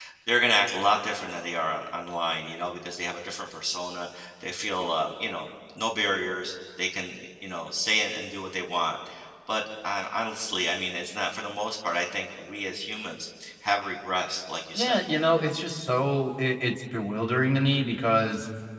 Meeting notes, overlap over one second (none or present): none